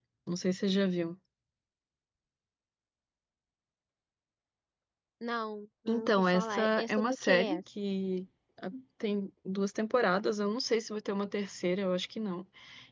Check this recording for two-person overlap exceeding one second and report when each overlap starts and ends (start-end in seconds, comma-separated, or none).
5.9-7.6